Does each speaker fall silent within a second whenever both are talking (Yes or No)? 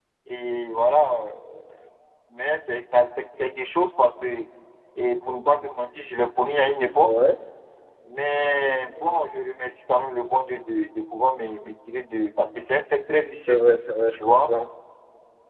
Yes